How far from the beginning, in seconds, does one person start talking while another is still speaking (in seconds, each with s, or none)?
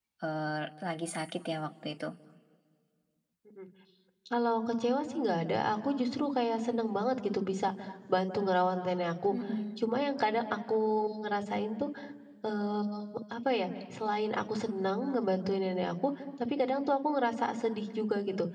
none